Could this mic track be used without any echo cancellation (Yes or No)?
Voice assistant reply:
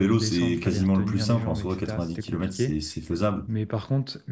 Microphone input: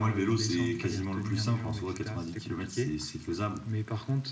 No